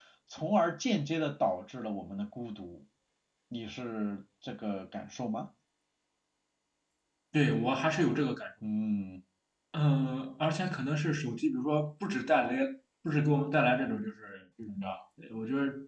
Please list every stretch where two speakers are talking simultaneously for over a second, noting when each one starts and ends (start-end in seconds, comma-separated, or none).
none